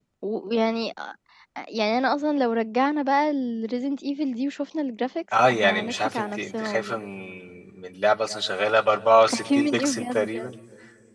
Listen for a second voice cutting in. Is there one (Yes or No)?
Yes